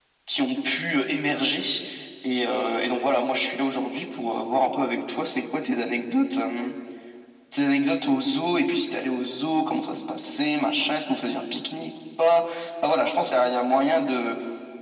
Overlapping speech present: No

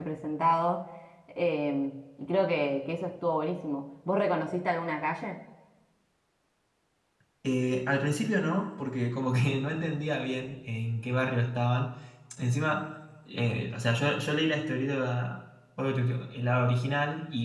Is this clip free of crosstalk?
Yes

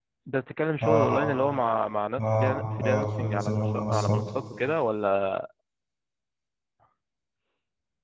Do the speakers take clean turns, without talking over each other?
No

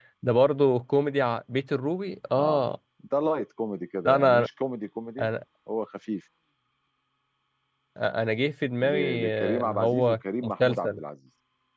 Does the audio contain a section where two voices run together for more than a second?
Yes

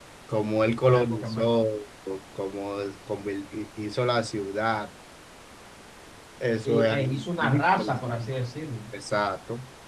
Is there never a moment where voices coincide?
No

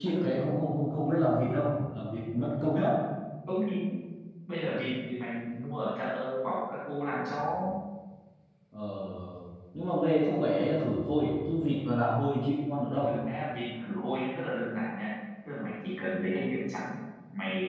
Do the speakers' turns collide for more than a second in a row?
No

